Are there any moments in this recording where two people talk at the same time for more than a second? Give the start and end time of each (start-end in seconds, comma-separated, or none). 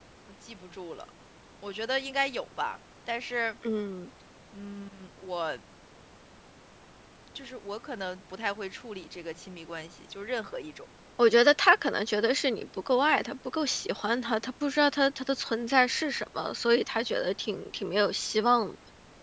none